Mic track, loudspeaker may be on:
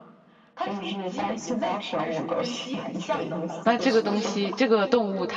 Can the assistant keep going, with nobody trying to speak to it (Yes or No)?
No